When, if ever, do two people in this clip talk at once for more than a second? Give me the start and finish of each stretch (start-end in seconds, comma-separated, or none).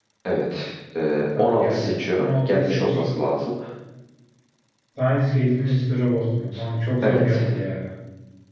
1.4-3.0